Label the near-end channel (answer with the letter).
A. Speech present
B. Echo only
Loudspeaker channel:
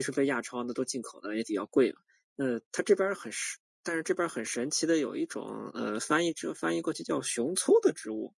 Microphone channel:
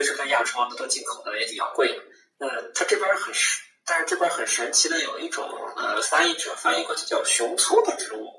B